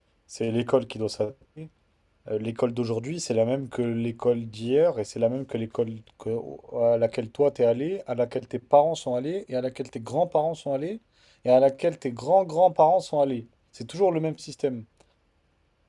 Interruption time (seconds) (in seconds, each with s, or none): none